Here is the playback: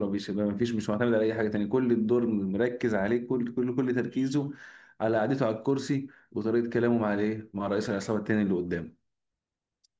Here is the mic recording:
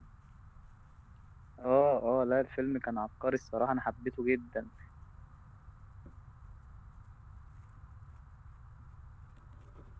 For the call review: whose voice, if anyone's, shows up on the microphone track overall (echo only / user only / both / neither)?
user only